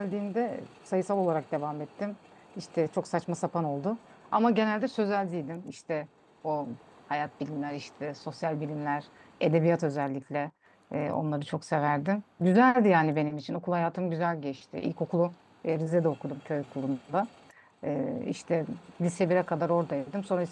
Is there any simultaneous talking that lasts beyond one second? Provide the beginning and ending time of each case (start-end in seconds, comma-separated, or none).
none